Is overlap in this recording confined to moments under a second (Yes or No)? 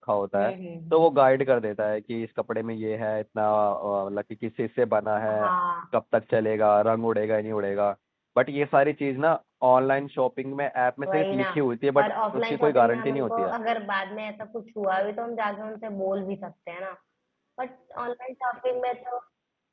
No